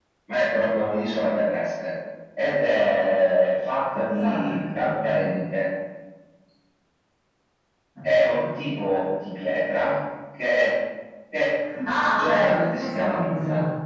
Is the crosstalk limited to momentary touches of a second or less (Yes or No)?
No